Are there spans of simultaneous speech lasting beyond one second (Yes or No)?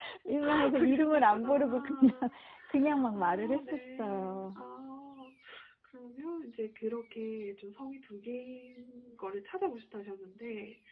Yes